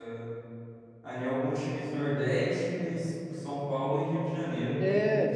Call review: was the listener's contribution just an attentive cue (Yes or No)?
No